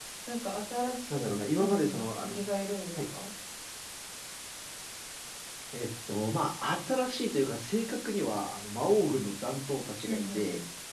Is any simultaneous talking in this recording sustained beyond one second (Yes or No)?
Yes